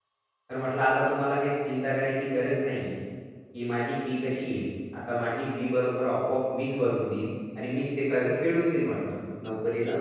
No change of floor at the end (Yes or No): No